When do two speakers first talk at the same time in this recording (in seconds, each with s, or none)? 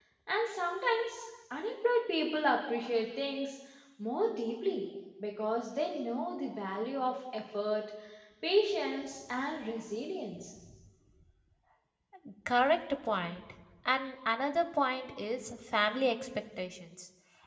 none